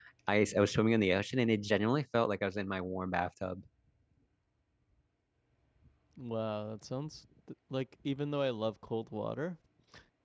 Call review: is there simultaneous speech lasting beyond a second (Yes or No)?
No